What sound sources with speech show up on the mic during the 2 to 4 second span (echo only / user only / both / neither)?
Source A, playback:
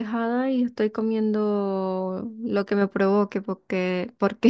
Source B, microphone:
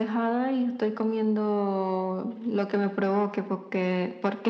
echo only